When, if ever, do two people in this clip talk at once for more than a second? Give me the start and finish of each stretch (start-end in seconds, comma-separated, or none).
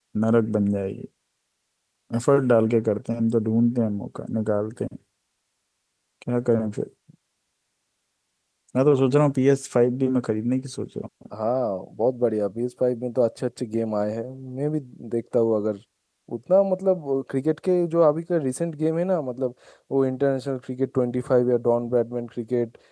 none